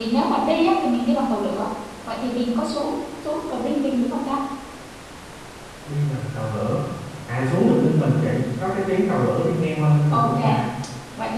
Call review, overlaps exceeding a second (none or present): none